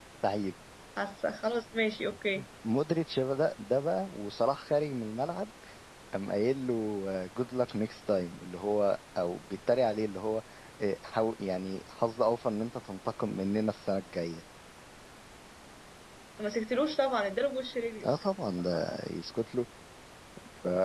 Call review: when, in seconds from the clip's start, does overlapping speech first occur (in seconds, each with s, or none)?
none